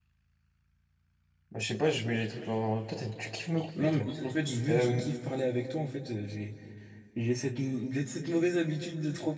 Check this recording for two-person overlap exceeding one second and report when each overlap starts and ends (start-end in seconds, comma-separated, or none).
none